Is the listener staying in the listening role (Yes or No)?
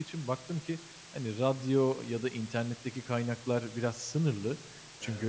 Yes